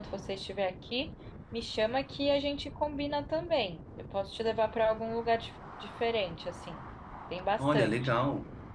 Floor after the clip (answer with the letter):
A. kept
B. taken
B